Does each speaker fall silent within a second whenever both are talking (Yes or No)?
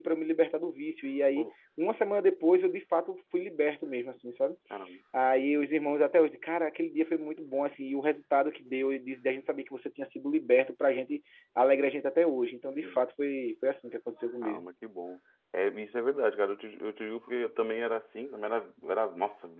Yes